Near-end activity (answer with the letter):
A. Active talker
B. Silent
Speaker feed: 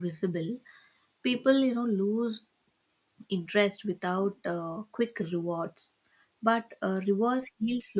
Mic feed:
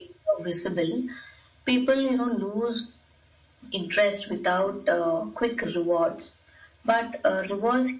B